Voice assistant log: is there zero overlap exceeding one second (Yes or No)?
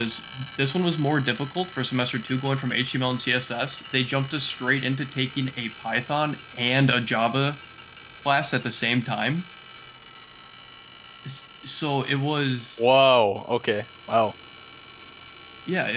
Yes